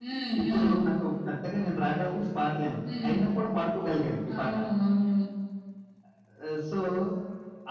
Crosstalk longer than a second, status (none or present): none